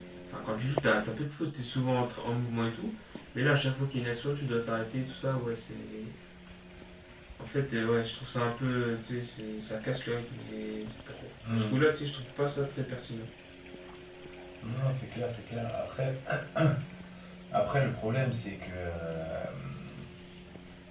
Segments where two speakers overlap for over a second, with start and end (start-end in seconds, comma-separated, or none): none